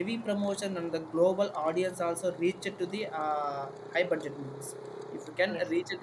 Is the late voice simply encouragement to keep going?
Yes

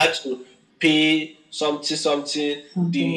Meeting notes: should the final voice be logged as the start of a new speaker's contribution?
No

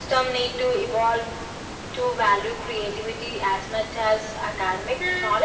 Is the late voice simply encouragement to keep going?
No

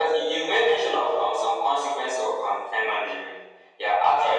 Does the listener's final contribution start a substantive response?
No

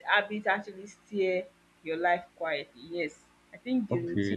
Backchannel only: No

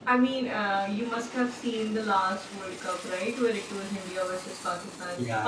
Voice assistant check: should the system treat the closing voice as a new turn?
No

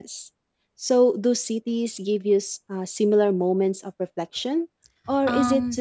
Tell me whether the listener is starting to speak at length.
Yes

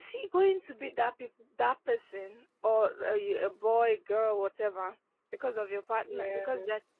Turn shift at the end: No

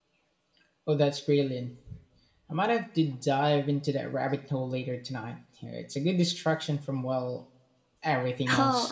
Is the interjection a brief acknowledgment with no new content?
No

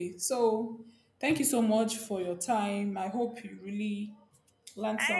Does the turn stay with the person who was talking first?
No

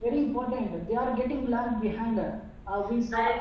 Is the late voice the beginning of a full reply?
No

